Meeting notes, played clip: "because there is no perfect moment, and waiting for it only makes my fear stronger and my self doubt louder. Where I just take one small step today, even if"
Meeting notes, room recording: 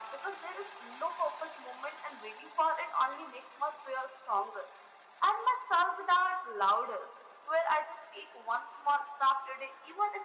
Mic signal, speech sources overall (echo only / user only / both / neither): echo only